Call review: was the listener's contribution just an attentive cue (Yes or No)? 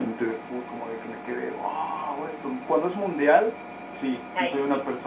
Yes